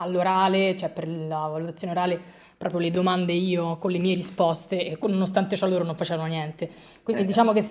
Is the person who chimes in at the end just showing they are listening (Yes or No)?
Yes